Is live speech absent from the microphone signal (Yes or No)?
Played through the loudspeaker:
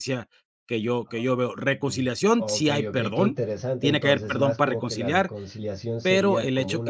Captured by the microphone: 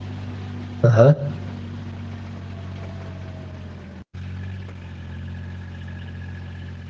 No